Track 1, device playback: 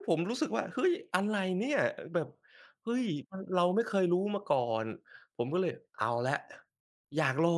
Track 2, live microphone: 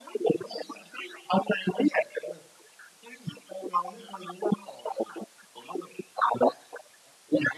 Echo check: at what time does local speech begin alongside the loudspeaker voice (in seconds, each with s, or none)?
none